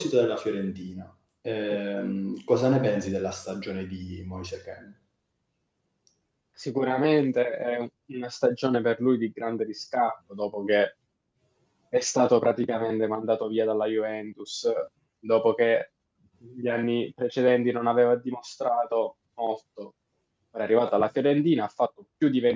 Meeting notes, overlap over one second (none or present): none